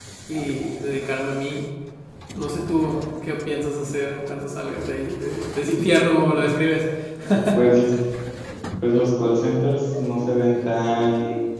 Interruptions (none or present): none